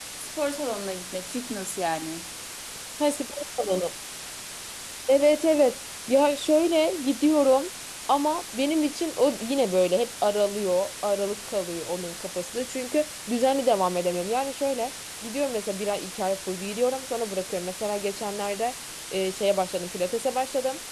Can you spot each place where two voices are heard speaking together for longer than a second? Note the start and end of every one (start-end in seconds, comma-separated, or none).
none